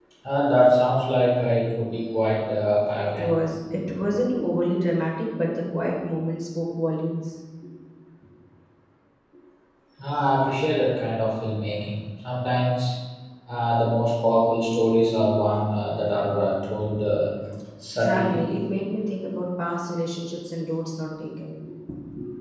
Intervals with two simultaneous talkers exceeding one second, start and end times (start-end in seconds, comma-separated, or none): none